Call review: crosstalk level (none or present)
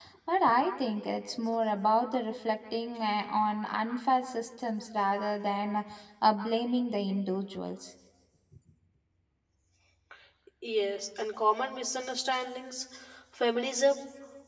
none